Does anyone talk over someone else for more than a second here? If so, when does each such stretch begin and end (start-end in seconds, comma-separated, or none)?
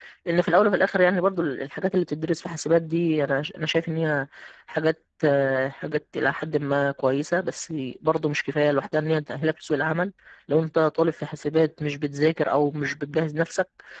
none